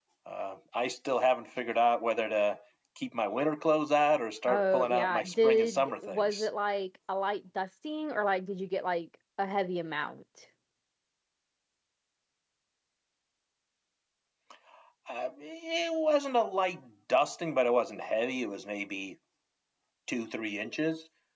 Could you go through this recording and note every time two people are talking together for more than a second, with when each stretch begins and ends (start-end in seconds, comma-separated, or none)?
4.5-6.5